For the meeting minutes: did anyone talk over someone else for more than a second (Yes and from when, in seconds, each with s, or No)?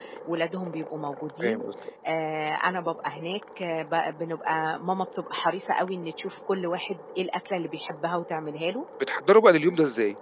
No